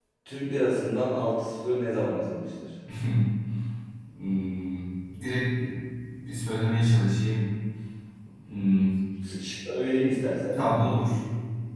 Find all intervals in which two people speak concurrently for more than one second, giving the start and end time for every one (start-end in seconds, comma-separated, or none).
none